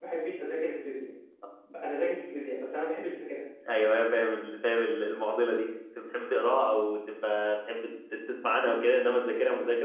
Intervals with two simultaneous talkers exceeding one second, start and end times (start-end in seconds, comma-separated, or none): none